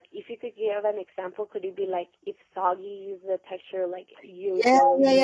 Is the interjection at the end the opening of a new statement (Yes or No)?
Yes